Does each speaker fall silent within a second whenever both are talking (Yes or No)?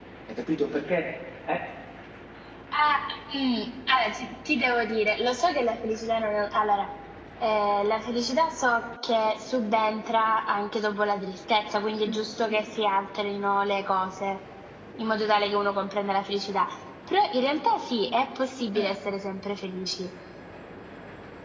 Yes